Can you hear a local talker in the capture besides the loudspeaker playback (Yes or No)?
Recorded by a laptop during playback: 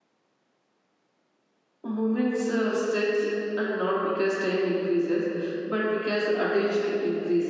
Yes